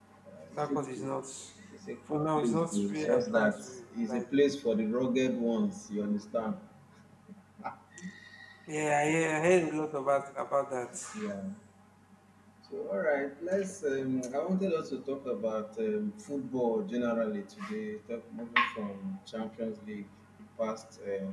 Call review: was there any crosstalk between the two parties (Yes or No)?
Yes